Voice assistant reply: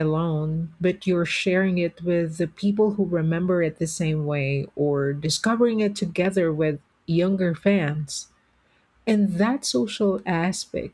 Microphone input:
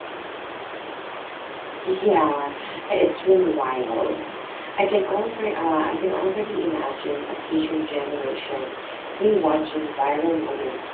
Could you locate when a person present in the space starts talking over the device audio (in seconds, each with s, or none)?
1.8 s